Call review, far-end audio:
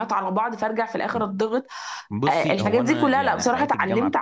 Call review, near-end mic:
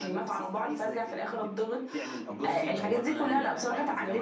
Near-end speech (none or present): present